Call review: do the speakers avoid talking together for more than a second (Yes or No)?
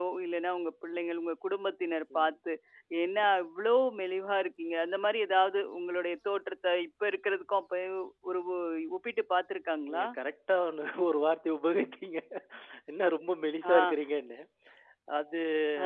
Yes